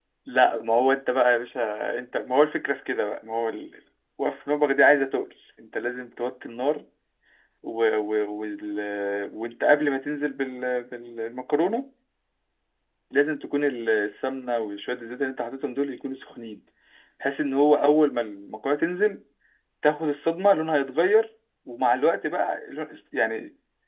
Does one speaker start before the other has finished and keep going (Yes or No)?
No